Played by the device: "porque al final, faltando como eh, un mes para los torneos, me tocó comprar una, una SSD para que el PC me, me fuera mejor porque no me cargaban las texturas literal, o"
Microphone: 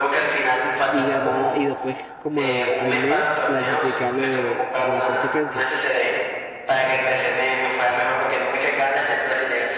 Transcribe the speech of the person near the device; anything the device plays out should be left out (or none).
Y ganaba, y después como a- al mes clasifiqué a lo de a la Frosty Frenzy,